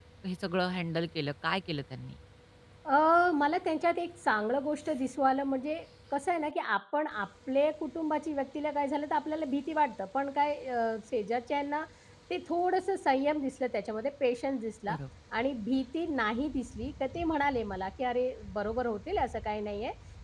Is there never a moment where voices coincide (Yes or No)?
Yes